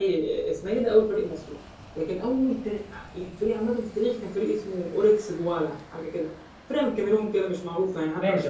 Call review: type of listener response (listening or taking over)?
taking over